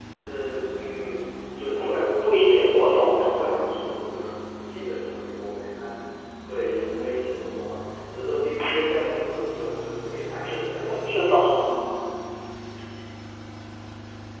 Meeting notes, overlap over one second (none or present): present